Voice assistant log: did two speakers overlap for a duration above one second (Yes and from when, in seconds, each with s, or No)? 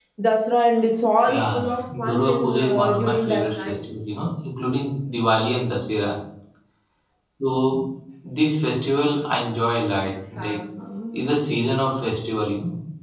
Yes, from 1.2 s